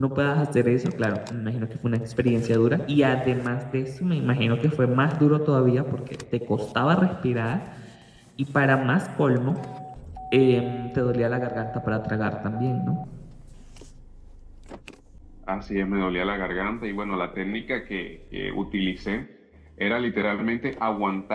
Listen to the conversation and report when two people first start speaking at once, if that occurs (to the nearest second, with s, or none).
none